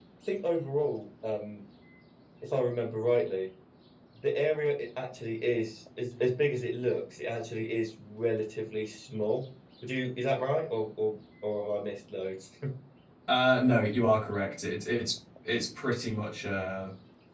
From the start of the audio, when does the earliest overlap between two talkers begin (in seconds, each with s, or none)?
none